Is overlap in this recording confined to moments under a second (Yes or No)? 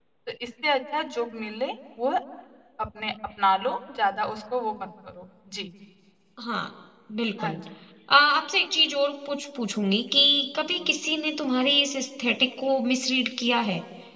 Yes